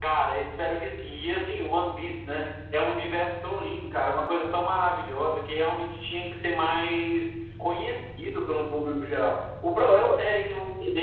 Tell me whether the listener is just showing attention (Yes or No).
Yes